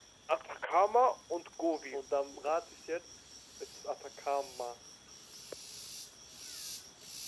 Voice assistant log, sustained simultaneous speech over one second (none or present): none